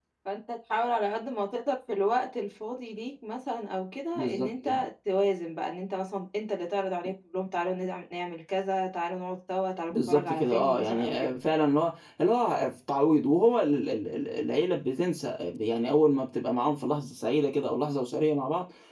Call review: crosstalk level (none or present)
present